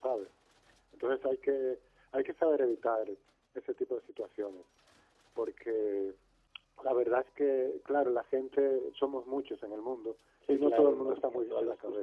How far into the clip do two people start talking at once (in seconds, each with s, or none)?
10.4 s